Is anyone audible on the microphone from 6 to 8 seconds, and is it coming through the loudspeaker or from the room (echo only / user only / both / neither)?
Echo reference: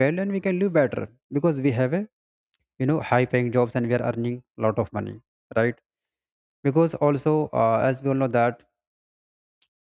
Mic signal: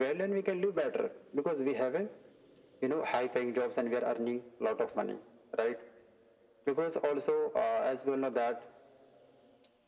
echo only